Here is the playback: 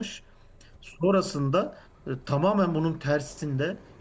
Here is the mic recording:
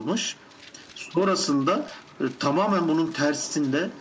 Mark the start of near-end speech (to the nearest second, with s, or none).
none